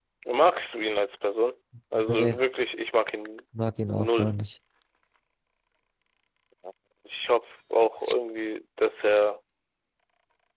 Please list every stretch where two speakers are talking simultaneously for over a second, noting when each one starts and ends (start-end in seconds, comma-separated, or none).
none